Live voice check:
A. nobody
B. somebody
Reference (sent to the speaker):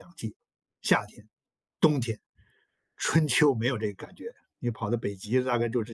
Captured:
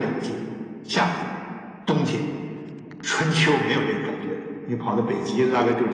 A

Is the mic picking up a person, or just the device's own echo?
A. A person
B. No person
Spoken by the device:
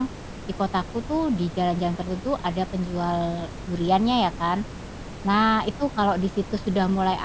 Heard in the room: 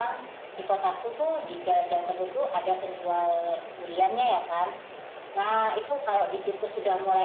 B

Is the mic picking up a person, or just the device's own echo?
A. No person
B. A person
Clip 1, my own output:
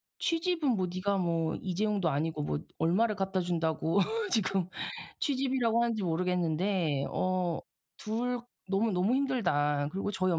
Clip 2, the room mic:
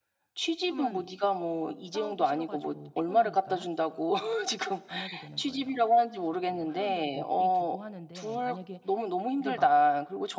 B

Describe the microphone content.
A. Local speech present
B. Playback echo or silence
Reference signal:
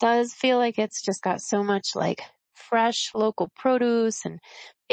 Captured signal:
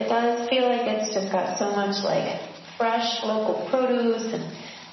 B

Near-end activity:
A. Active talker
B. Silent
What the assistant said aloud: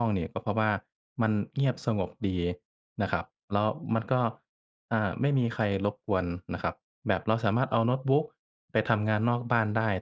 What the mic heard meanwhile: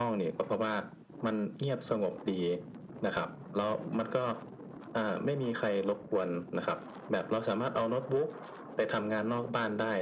B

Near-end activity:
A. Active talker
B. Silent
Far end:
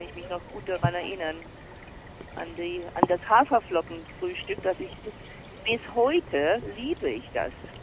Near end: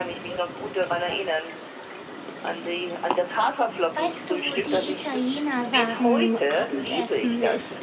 A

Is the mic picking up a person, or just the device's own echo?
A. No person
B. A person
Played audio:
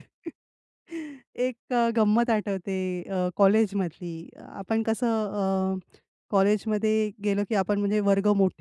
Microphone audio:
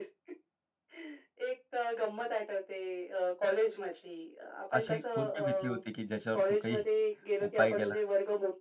B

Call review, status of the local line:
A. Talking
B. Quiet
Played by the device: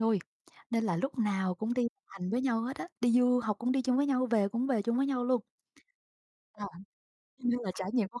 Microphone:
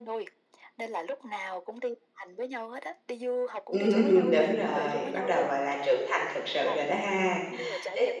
A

